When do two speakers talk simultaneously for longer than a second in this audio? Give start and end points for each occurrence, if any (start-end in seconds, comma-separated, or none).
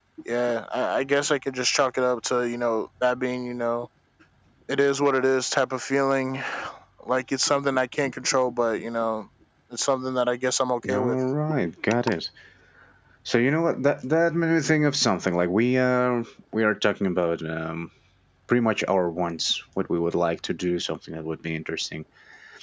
none